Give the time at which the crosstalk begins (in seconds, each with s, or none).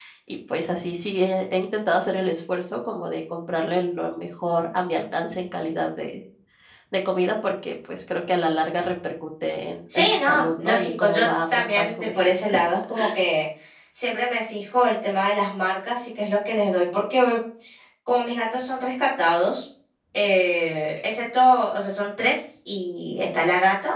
9.9 s